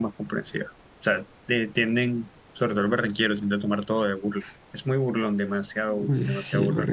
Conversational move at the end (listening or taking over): taking over